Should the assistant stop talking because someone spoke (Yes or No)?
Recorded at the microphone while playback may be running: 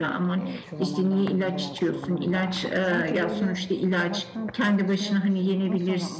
Yes